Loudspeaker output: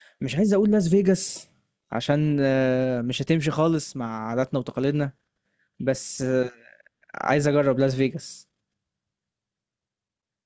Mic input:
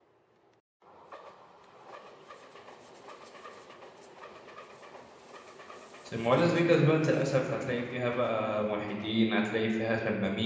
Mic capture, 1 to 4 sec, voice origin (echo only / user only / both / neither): neither